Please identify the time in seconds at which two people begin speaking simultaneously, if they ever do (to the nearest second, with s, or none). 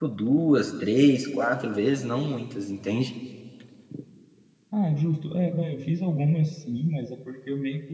none